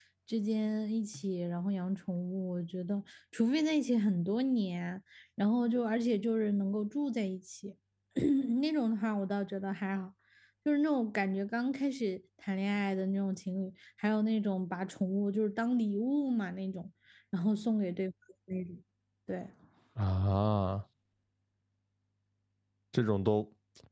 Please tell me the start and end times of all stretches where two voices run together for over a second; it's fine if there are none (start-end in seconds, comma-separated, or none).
none